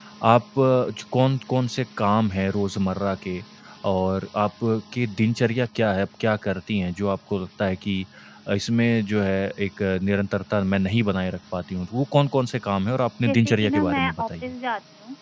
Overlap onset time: 13.2 s

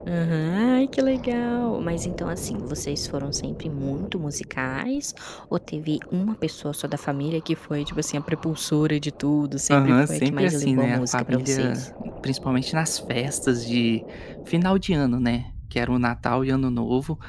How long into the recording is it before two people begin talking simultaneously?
9.7 s

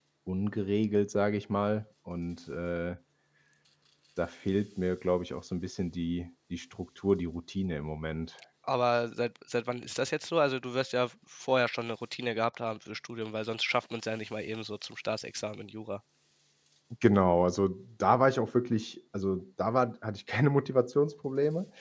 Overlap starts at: none

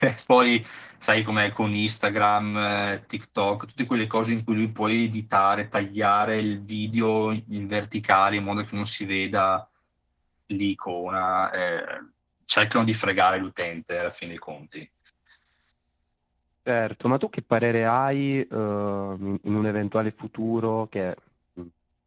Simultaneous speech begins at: none

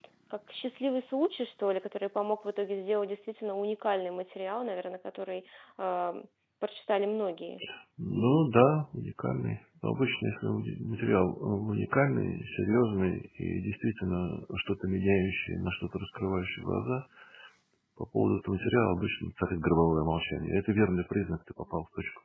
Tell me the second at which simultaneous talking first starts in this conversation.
none

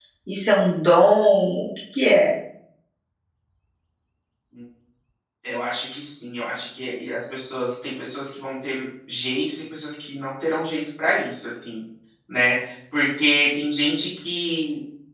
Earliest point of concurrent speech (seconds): none

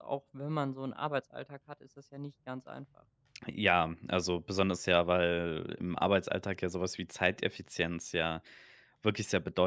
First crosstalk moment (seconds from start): none

